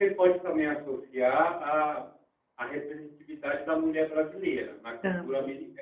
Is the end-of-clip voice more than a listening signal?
No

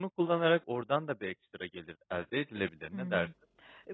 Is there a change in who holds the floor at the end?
Yes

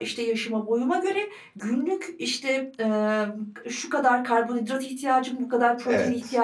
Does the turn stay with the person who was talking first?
Yes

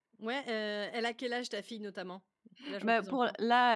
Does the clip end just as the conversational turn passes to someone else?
Yes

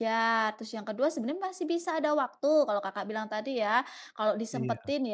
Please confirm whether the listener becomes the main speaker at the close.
No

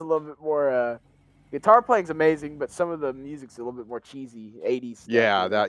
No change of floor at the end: No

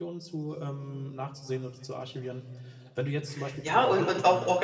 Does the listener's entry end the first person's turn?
Yes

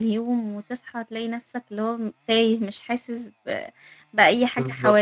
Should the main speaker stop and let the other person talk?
Yes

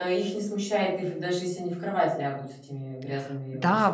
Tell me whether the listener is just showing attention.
No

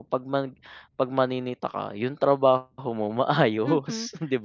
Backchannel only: No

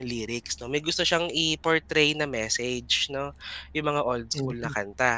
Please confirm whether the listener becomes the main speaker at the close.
No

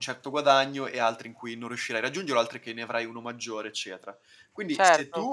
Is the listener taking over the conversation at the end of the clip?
No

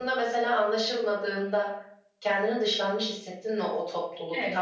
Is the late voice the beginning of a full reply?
Yes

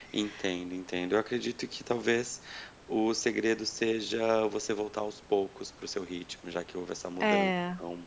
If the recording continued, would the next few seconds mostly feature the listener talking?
No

